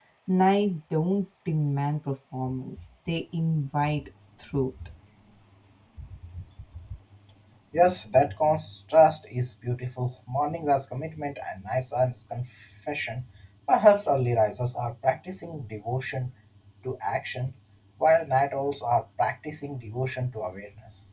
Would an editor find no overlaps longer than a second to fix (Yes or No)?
Yes